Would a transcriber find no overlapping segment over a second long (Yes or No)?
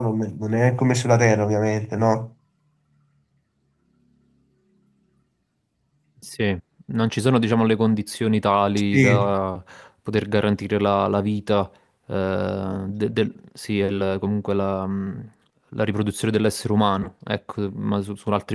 Yes